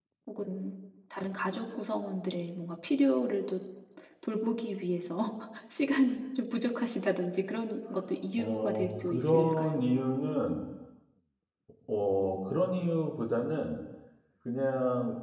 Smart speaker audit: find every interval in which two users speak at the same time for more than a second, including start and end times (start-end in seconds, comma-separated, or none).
8.4-9.9